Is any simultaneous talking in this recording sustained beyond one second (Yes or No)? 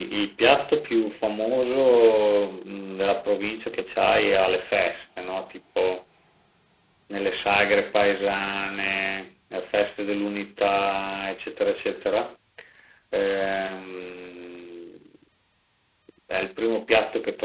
No